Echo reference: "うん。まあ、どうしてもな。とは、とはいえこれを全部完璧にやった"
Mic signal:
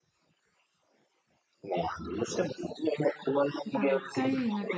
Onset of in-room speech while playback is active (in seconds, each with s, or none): 3.6 s